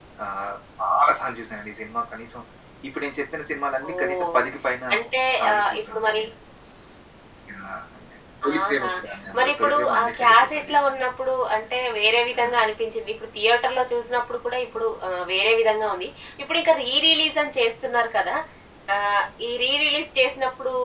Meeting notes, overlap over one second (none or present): present